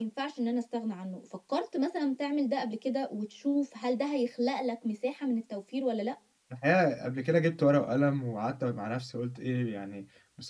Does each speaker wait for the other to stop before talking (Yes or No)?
Yes